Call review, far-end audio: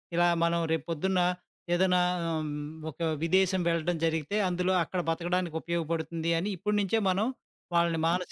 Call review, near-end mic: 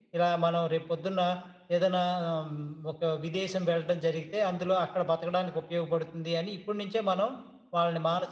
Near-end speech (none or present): none